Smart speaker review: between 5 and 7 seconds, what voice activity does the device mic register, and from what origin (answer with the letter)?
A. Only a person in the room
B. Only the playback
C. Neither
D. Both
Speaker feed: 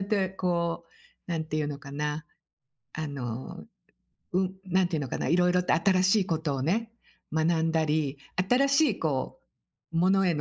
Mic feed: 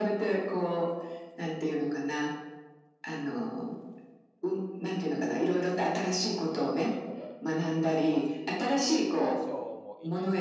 D